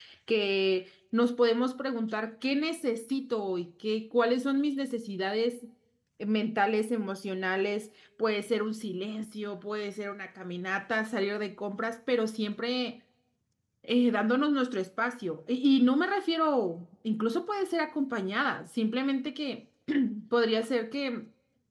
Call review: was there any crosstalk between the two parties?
No

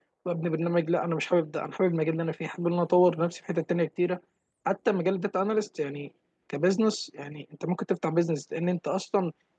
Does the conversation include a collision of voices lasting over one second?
No

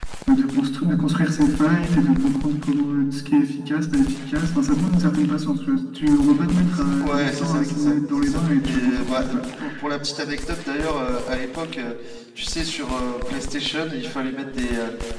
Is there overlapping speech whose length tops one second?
Yes, from 6.7 s

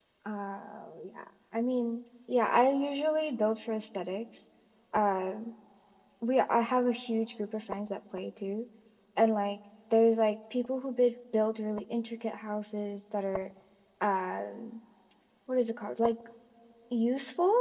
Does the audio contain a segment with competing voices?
No

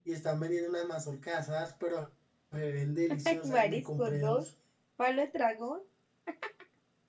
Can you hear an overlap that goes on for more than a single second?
Yes, from 3.2 s

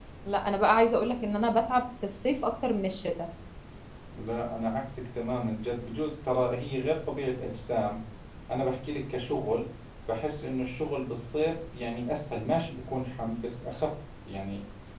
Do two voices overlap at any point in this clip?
No

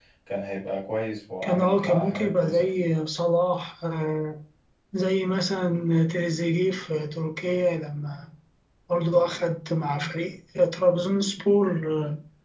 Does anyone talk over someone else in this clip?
Yes, from 1.4 s

